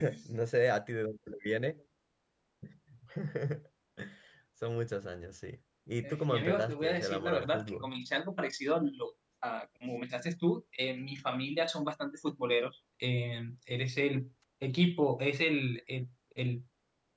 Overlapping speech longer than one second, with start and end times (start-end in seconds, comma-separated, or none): 6.0-7.9